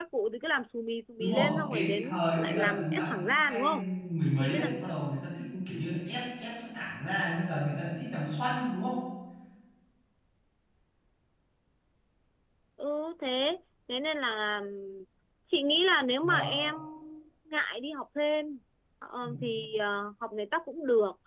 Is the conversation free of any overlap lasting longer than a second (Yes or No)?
No